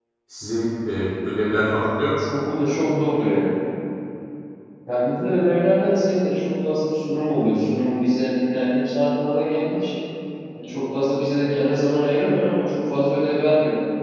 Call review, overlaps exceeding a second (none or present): none